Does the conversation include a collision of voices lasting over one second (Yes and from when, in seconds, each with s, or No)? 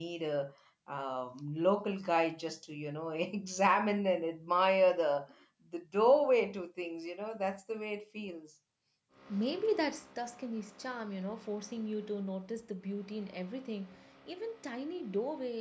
No